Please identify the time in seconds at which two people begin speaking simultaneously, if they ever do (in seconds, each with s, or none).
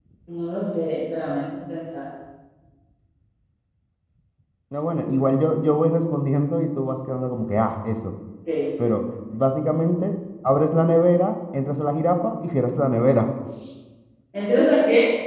none